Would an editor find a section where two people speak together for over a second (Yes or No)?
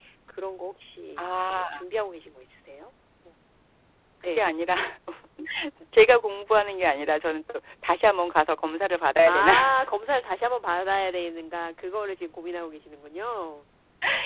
No